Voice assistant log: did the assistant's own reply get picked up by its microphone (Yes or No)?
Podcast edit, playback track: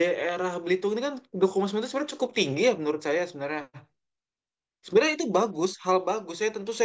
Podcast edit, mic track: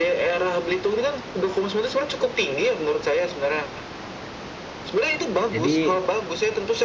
Yes